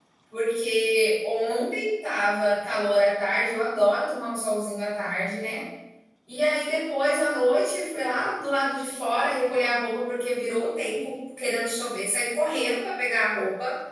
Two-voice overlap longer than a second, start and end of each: none

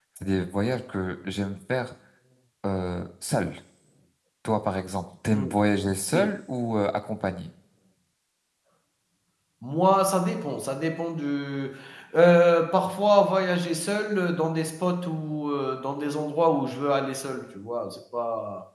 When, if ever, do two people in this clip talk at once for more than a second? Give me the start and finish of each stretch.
none

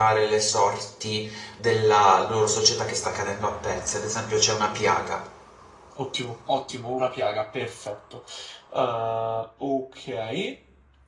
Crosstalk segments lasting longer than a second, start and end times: none

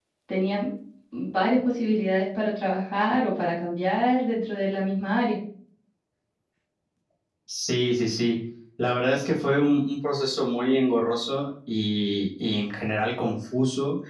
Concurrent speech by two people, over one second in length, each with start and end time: none

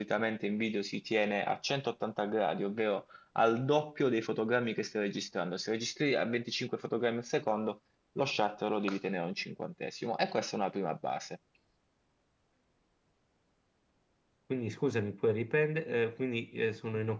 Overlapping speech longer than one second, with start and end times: none

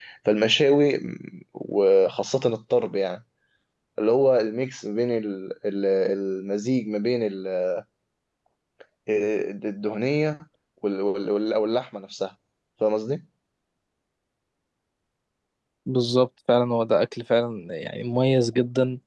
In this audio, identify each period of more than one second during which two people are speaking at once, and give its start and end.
none

